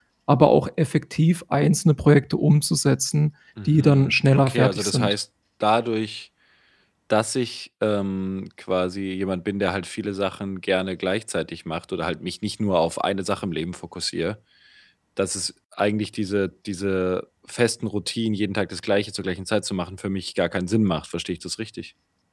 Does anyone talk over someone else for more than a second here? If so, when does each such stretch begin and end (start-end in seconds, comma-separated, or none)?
3.7-5.1